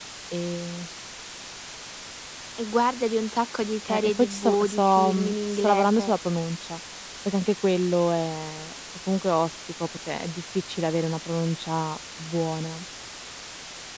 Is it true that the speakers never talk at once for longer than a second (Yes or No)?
No